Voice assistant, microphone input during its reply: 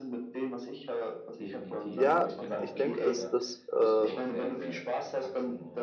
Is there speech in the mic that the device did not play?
Yes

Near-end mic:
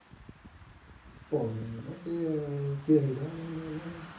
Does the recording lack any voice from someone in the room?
No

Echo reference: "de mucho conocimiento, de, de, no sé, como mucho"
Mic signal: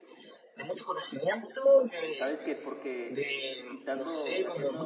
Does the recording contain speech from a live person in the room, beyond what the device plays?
Yes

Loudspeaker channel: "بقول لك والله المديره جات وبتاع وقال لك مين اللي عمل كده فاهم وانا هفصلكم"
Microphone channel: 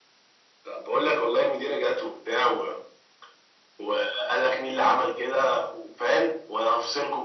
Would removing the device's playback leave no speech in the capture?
Yes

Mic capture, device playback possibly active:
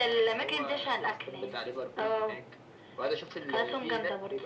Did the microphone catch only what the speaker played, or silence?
Yes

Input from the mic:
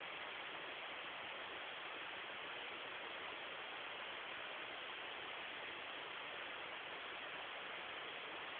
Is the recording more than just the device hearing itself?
No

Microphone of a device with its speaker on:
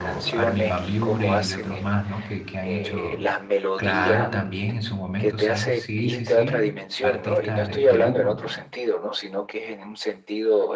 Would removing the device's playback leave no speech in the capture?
No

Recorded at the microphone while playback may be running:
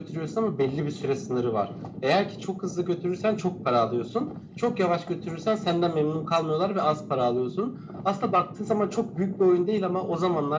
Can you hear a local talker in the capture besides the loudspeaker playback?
No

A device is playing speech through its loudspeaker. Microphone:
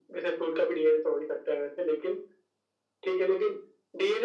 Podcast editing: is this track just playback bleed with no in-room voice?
Yes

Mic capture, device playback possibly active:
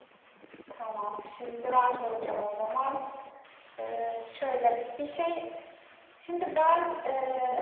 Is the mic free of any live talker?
Yes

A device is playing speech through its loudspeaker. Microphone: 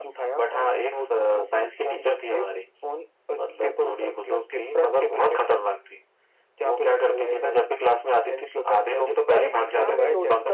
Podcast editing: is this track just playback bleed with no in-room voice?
No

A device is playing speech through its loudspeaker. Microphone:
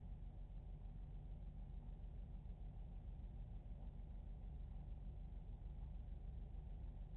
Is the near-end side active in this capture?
No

